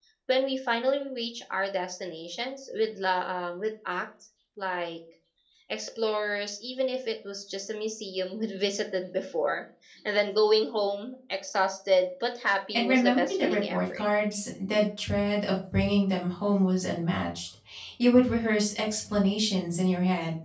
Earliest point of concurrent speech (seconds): 12.7 s

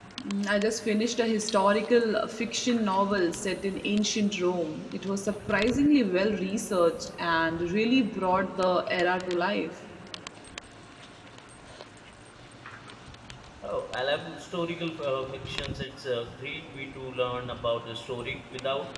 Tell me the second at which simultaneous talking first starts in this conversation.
none

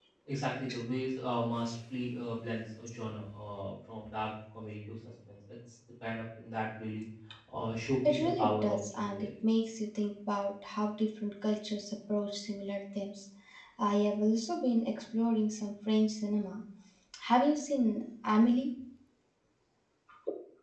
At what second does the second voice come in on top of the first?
8.1 s

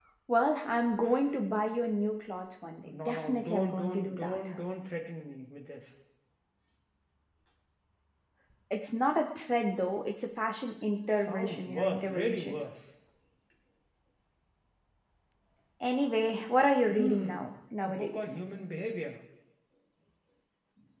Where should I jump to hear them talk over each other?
2.9 s

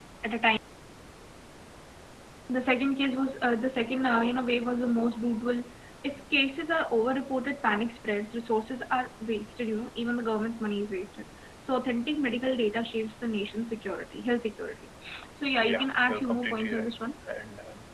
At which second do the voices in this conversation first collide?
15.6 s

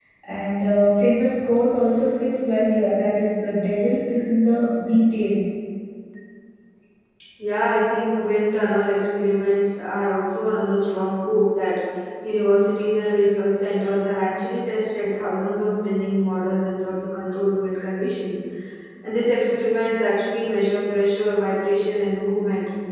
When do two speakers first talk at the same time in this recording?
none

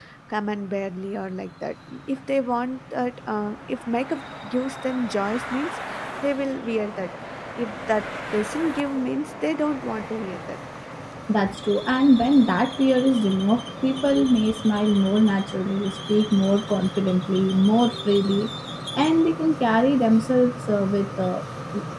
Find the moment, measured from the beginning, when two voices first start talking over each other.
none

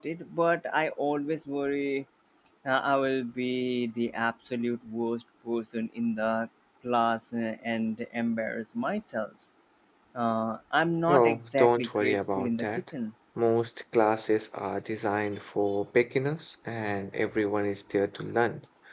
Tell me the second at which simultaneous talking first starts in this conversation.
11.1 s

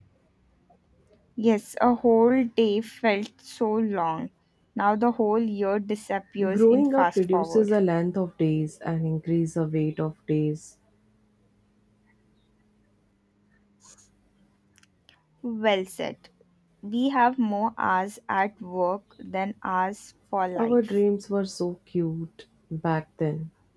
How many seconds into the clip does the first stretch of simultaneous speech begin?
6.5 s

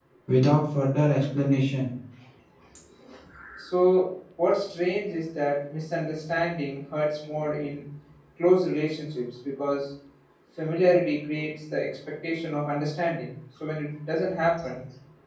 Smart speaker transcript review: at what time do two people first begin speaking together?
none

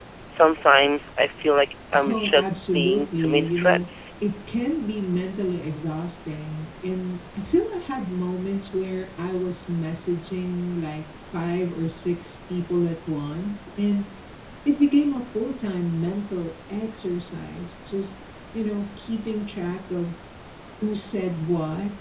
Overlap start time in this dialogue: 1.9 s

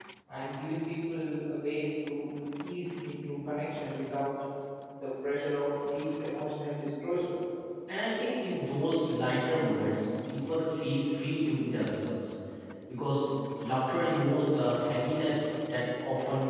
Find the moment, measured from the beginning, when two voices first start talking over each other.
none

